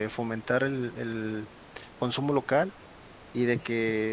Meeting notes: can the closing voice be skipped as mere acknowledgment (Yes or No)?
Yes